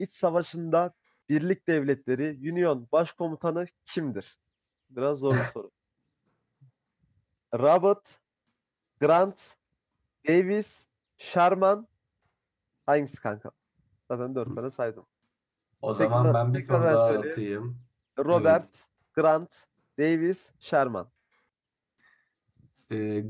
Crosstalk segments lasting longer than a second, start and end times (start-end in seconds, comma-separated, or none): 16.0-17.4